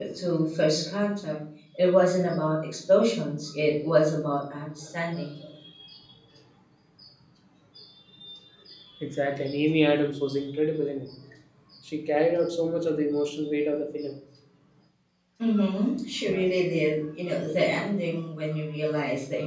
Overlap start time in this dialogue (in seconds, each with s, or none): none